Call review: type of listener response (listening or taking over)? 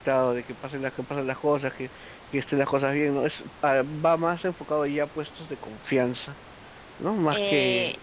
taking over